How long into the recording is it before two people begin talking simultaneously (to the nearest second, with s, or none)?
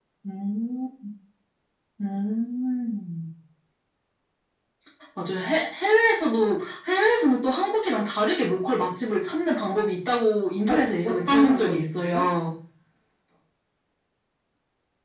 11 s